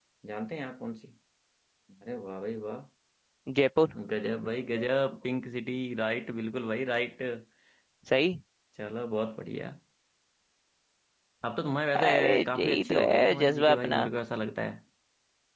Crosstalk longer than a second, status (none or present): present